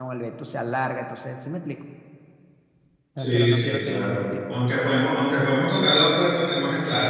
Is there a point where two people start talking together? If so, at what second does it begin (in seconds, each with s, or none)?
3.2 s